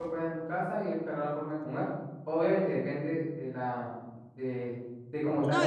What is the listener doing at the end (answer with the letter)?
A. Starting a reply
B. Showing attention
A